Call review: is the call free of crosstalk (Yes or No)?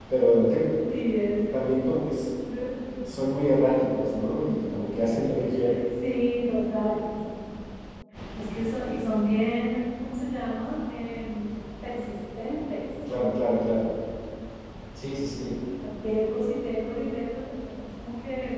Yes